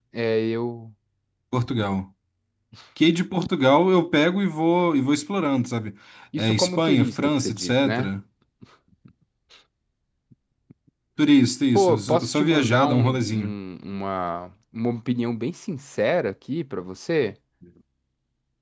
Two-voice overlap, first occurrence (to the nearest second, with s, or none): 6 s